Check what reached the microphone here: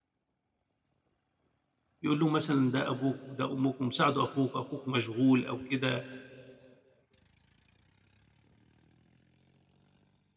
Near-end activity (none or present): present